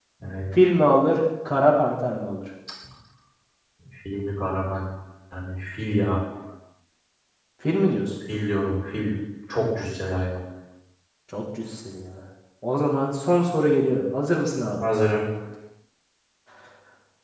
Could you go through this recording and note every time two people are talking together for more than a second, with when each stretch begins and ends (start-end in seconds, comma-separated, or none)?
none